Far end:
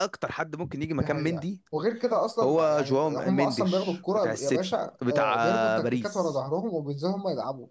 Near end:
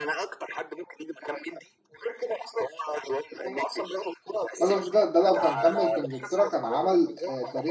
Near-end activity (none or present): present